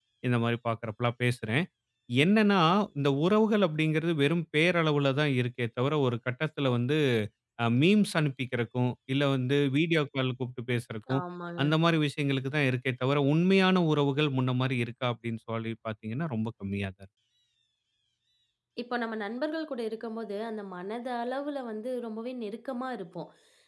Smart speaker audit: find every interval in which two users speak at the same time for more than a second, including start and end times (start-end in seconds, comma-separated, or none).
none